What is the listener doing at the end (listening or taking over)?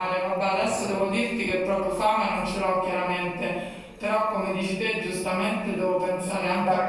taking over